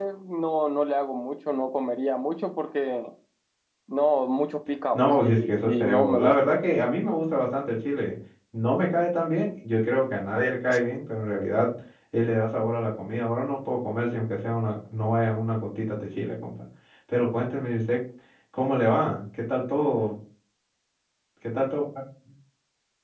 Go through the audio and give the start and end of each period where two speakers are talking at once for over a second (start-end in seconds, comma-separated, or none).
4.9-6.3